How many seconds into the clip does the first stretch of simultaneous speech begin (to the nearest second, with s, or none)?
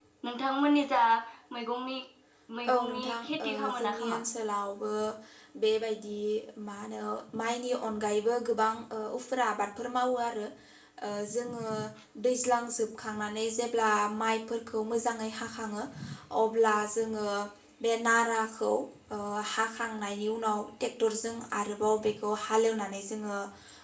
3 s